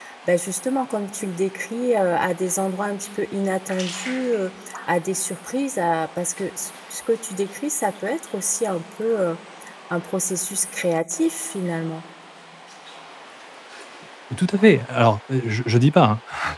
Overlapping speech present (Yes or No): No